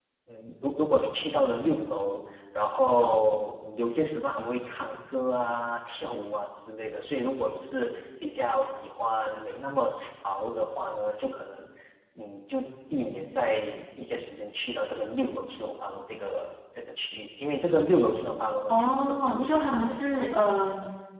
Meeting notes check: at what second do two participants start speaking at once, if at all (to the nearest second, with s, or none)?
19 s